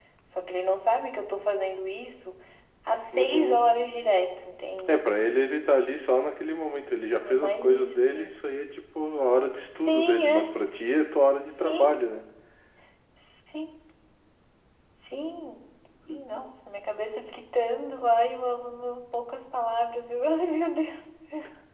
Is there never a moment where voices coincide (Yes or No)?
No